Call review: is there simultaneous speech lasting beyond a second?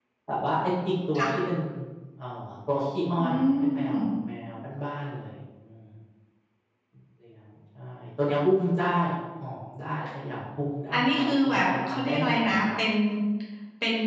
Yes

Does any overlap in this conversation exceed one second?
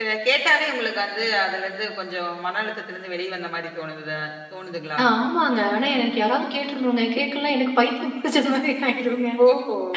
No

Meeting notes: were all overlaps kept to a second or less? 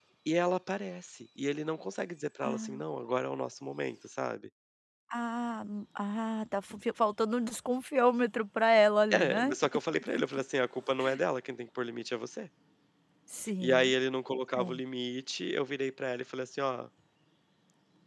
Yes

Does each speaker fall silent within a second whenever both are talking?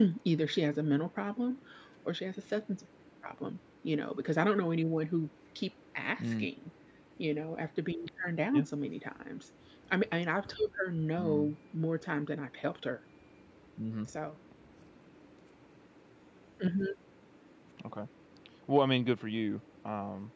Yes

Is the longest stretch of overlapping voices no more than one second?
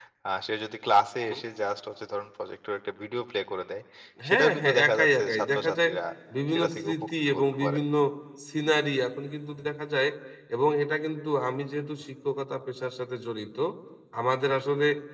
No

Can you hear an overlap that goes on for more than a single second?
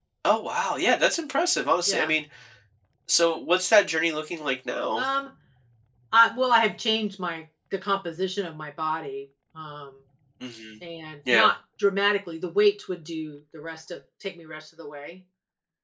No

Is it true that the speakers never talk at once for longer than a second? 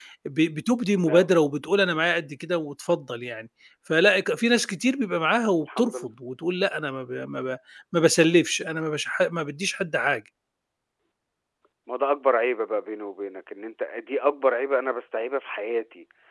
Yes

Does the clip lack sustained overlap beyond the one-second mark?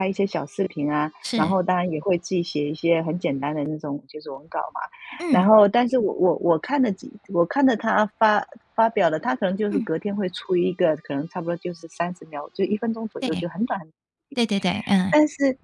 Yes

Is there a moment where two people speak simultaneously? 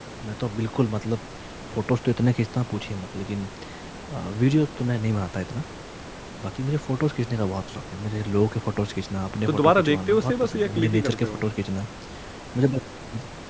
Yes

